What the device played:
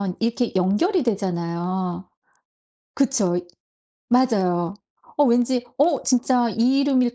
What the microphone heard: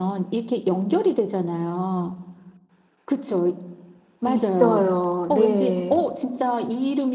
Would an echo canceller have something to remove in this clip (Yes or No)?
Yes